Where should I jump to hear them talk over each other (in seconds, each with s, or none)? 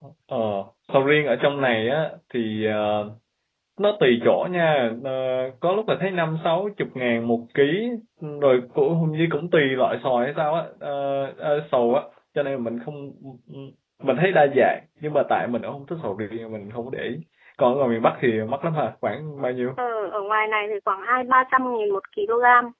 none